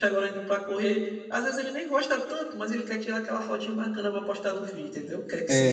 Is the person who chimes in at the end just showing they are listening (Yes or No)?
Yes